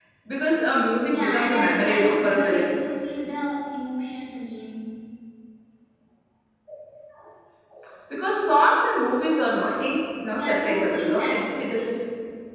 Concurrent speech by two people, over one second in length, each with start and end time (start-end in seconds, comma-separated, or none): 1.1-2.7, 10.4-12.0